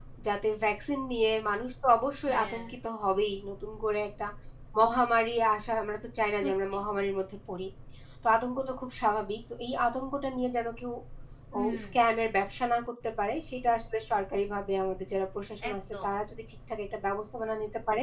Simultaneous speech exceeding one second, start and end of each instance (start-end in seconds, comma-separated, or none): none